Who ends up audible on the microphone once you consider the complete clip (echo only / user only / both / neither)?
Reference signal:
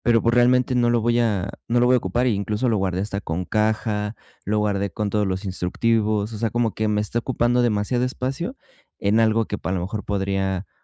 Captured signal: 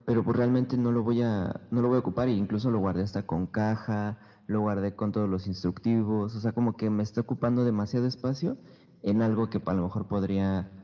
echo only